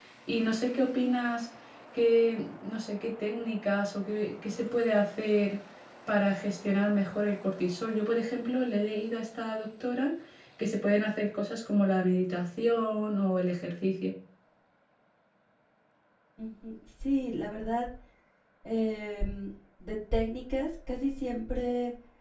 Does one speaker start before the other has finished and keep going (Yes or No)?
No